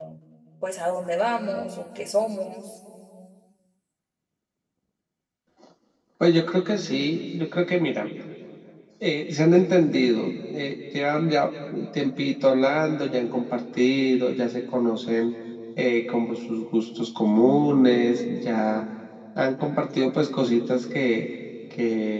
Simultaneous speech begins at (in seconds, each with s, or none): none